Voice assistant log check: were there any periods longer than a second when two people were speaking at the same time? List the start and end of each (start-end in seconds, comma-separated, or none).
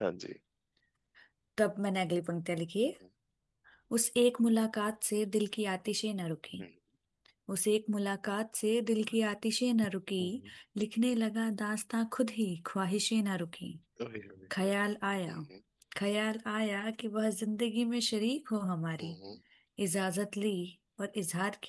none